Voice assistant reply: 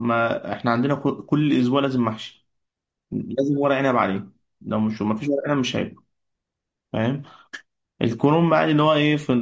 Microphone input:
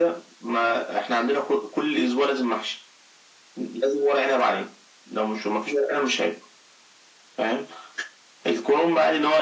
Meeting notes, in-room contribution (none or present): none